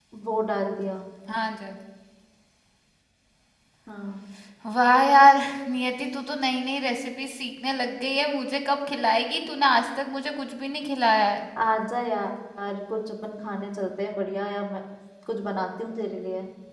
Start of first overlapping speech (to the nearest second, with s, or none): none